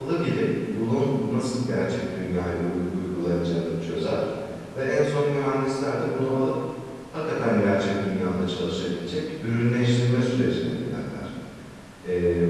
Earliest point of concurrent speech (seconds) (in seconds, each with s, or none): none